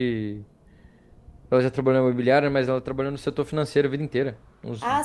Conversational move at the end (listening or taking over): taking over